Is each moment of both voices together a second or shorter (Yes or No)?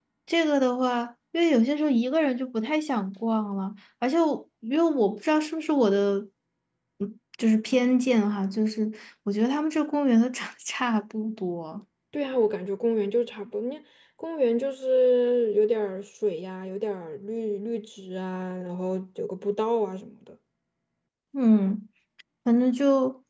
Yes